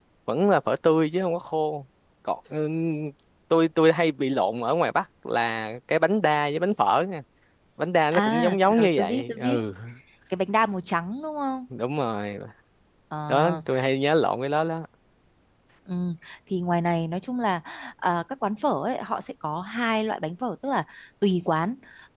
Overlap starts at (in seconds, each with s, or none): 8.1 s